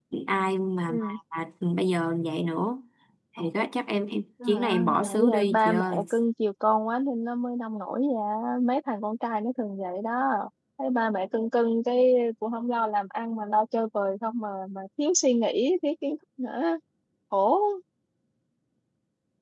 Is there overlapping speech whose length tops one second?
Yes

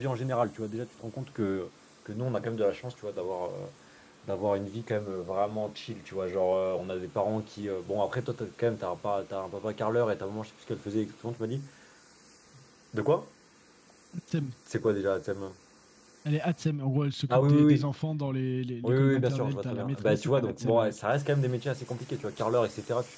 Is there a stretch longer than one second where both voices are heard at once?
Yes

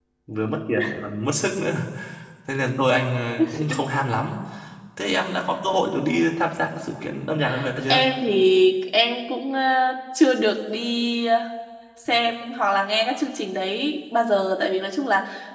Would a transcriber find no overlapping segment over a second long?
Yes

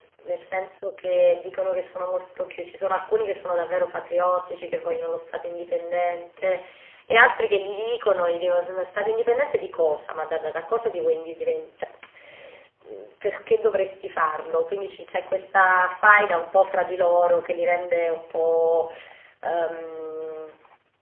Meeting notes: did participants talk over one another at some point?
No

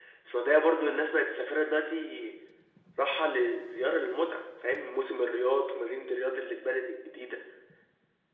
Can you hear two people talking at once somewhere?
No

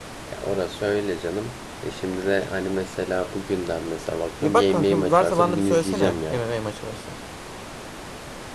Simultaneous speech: Yes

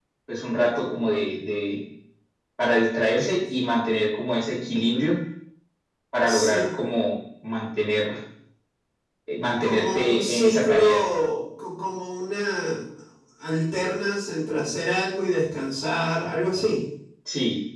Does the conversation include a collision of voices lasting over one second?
Yes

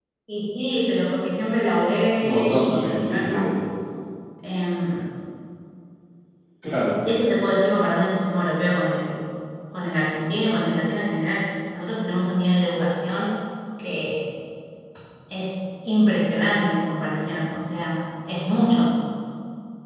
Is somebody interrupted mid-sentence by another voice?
Yes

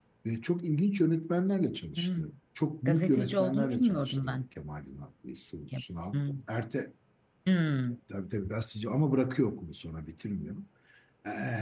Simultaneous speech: Yes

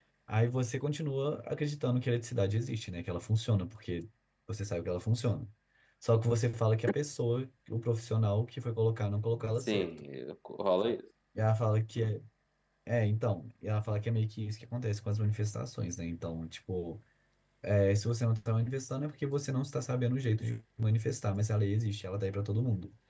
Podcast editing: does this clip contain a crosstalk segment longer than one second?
No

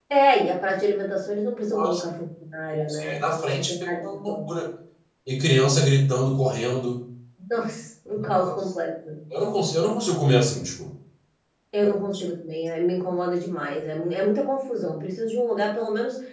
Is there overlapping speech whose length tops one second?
Yes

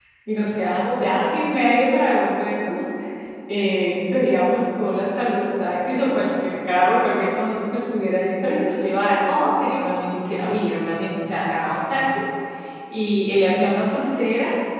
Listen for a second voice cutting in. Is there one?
No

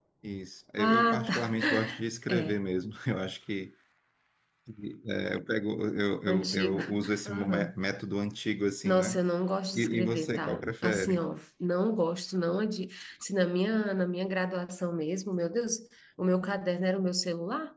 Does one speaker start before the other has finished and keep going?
Yes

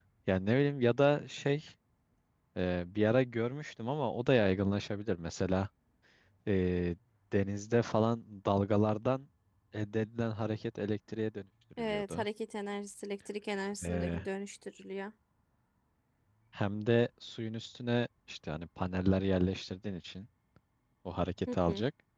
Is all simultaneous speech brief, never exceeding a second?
Yes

